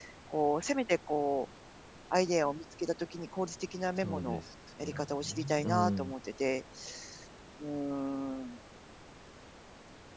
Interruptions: present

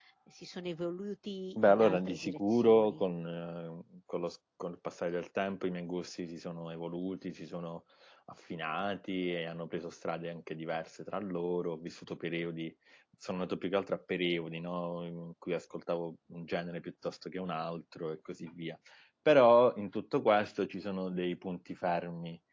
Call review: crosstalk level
present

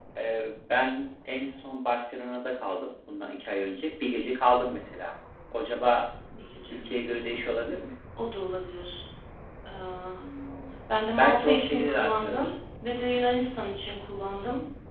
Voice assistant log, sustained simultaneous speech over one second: present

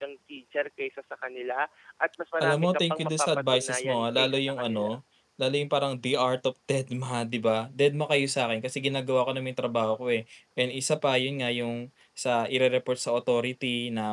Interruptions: present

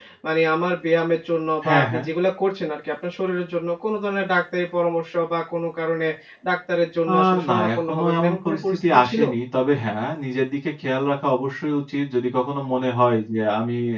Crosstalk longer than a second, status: present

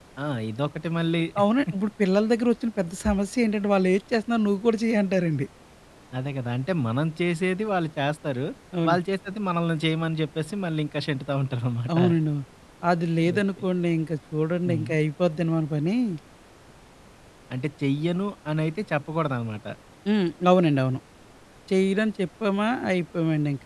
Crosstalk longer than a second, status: none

